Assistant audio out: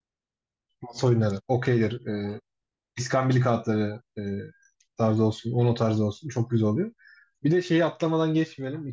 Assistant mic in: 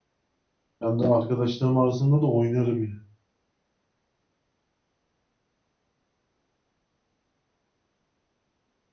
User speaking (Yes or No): Yes